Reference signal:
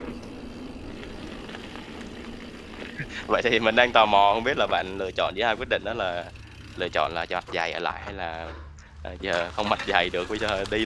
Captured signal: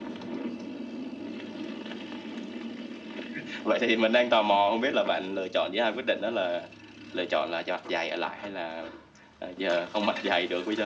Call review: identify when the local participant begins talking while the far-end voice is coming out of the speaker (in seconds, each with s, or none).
none